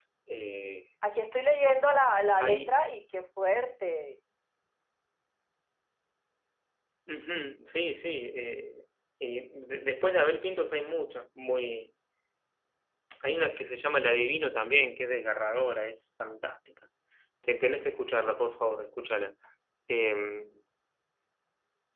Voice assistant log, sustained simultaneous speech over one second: none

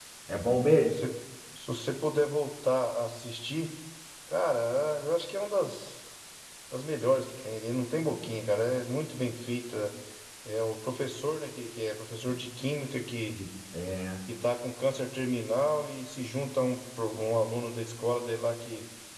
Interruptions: none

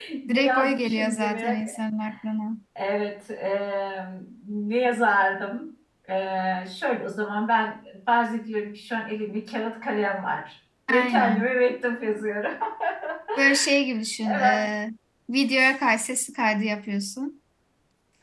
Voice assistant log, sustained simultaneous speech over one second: present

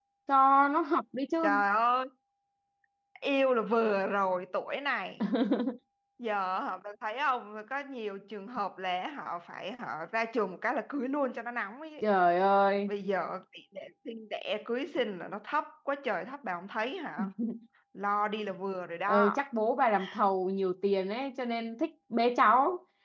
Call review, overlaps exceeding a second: none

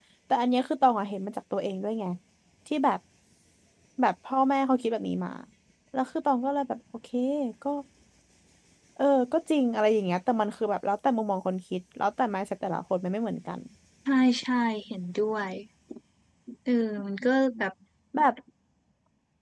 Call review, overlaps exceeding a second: none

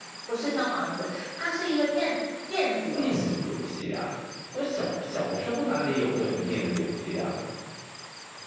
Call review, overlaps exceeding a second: none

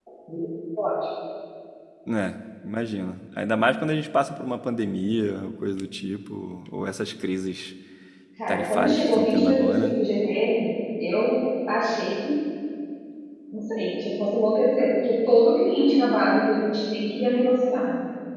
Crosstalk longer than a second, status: present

